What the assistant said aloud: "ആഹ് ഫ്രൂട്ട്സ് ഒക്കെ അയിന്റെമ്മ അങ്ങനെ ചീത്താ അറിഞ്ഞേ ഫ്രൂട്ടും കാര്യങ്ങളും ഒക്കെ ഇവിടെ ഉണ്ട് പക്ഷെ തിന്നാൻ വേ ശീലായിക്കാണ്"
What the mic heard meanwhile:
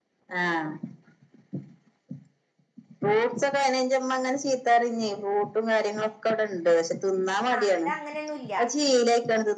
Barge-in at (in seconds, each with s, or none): 7.5 s